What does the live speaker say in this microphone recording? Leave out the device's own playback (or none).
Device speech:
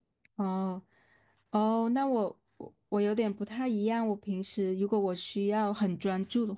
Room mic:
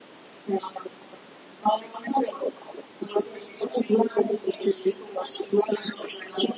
none